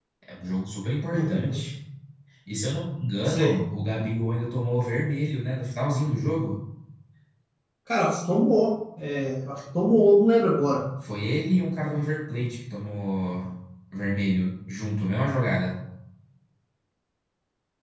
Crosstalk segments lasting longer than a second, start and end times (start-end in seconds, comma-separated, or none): none